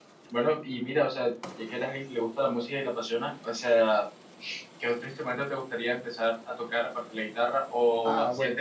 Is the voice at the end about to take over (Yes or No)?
No